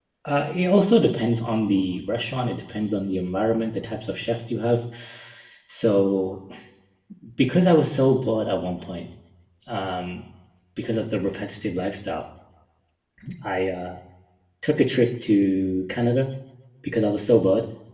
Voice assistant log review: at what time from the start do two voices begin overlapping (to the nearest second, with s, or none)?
none